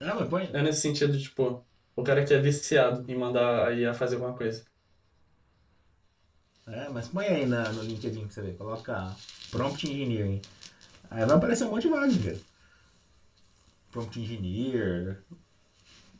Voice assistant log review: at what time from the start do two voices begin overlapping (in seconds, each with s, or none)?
none